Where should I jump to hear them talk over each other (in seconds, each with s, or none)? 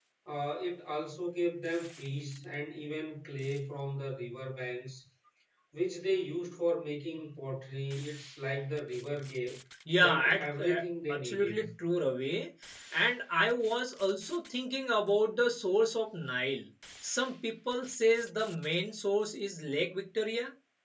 10.0 s